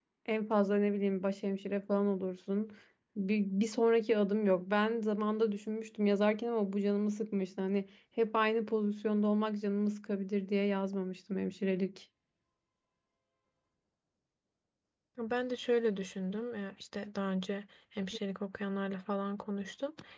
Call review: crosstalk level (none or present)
none